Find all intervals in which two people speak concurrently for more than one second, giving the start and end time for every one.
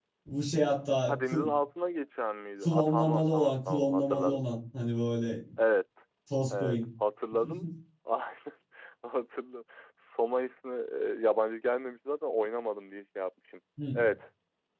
2.6-4.4

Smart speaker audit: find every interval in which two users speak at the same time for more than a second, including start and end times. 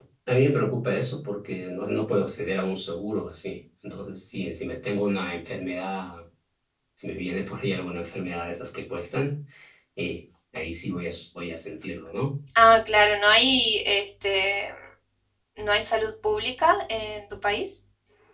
none

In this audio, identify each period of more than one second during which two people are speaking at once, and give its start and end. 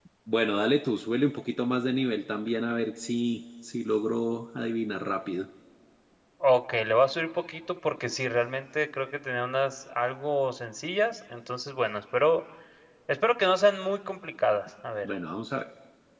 none

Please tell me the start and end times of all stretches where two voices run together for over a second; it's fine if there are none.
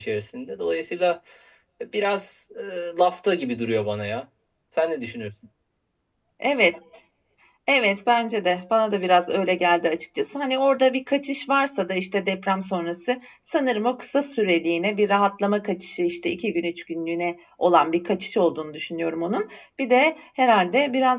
none

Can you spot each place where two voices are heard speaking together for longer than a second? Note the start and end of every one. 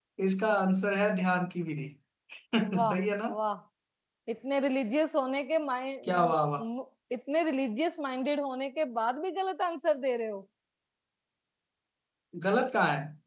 none

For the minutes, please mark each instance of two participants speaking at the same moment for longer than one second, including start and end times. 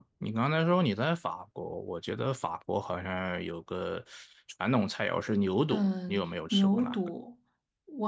5.7-7.0

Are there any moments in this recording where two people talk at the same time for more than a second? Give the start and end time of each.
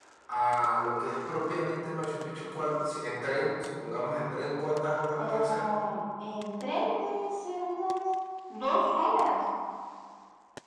none

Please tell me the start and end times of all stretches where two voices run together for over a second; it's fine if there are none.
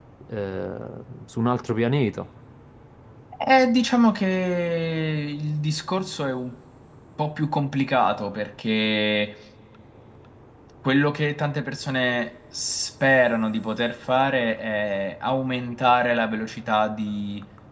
none

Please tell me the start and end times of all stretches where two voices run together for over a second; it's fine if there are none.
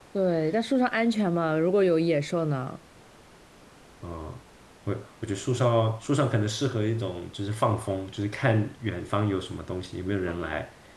none

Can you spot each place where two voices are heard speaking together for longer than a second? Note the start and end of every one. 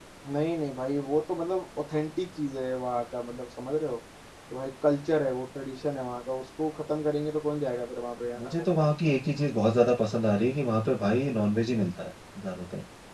none

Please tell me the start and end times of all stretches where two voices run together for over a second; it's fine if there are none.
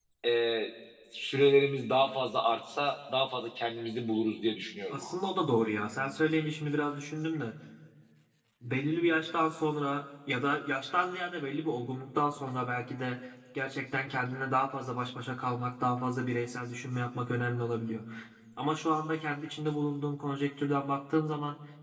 none

